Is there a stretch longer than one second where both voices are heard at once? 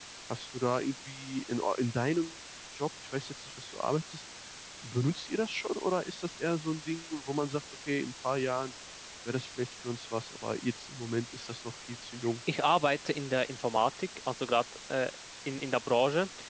No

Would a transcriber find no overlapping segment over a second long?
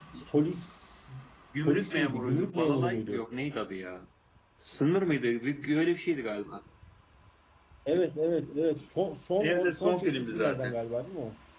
No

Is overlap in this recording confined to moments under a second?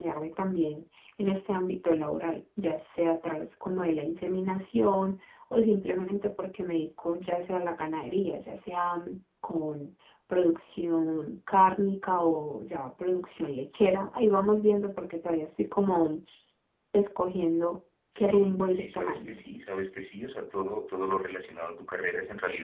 No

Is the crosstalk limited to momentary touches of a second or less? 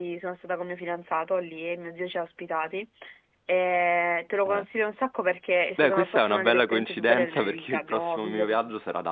No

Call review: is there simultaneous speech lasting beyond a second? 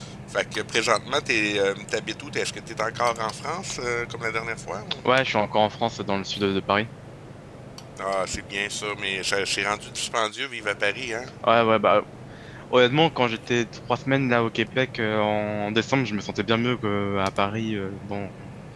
No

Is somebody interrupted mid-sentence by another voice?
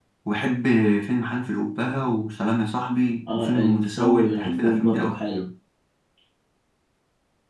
Yes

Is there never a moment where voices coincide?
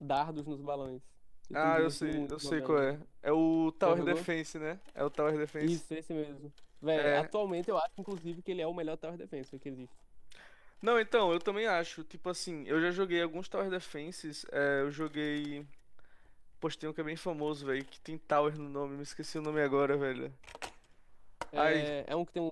No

